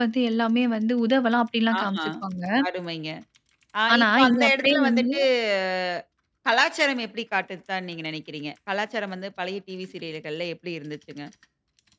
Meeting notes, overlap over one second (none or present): present